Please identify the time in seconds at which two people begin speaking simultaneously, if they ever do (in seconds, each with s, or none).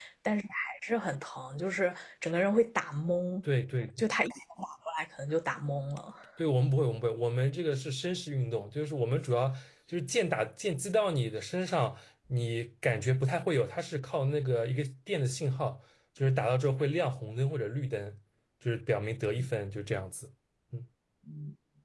none